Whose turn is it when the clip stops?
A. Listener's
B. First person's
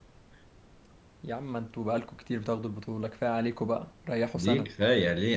A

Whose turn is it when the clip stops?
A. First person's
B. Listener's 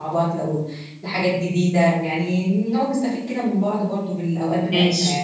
B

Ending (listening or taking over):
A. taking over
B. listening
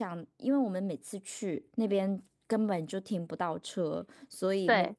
B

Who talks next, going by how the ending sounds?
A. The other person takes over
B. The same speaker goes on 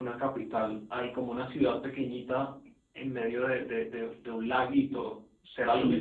A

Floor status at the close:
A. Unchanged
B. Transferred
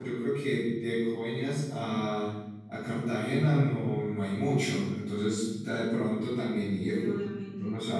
B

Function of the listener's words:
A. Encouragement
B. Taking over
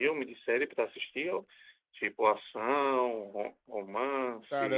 B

